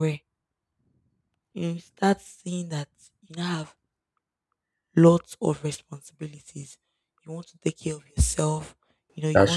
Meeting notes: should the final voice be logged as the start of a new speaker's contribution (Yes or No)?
No